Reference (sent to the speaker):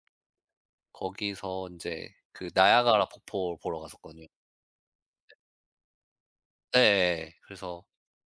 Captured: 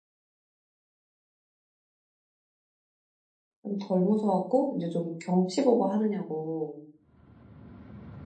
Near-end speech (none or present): present